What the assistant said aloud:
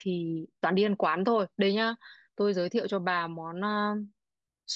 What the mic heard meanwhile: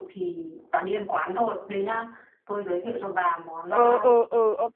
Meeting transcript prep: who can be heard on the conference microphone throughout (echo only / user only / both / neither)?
both